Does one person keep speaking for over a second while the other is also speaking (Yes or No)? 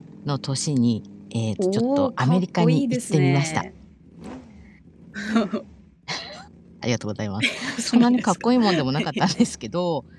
Yes